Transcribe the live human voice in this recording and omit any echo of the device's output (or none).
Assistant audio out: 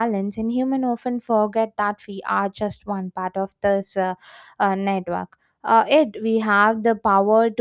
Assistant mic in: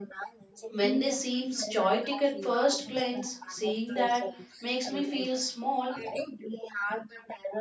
when they seem chaotic at first glance, seeing that makes me feel small,